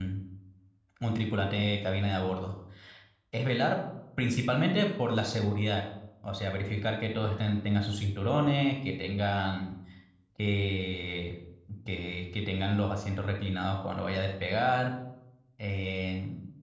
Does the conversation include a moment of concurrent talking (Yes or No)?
No